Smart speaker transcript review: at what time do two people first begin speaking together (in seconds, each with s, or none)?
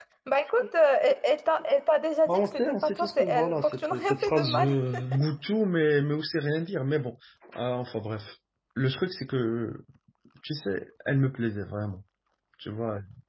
2.3 s